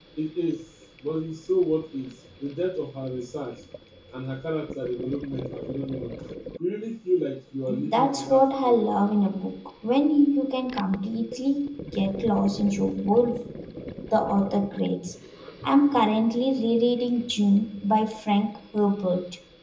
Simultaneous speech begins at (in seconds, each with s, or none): 7.7 s